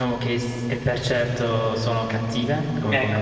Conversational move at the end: taking over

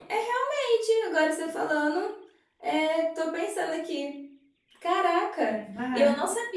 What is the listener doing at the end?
listening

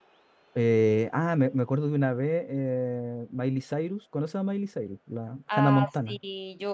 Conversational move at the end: taking over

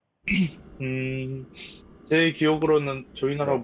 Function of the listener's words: listening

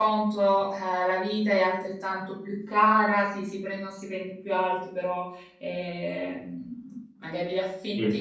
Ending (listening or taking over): listening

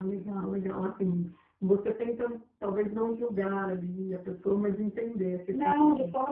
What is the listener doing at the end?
taking over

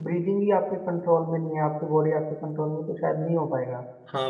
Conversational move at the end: taking over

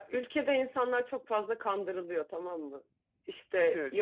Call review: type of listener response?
listening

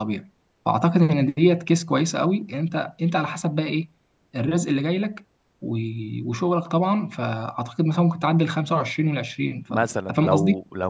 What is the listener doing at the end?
taking over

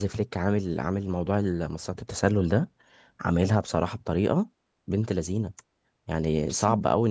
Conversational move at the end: listening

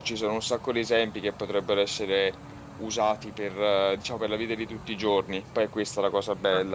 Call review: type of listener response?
taking over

